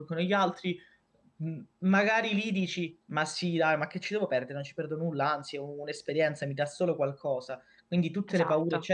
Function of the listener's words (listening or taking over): listening